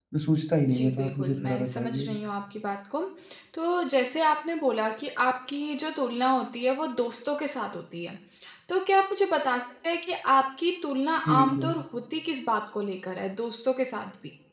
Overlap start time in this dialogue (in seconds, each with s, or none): 0.7 s